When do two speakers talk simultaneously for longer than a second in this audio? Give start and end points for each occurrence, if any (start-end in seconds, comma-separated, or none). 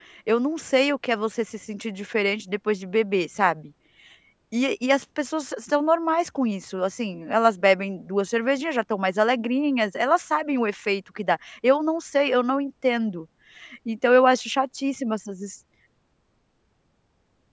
none